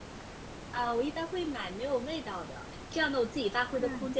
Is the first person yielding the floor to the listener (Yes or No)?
No